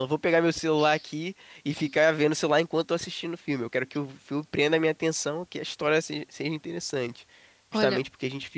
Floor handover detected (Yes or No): No